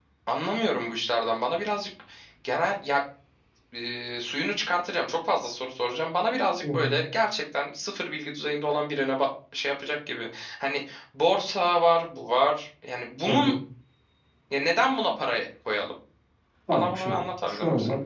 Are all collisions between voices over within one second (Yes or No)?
No